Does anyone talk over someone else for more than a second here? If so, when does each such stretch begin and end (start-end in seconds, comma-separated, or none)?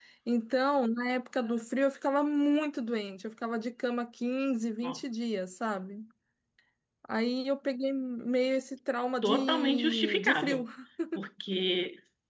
9.2-10.6